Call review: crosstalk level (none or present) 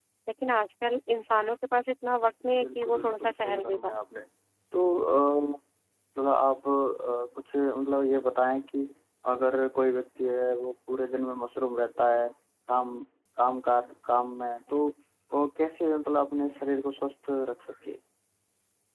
present